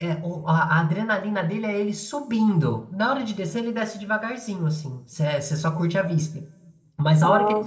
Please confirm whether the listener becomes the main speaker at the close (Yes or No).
No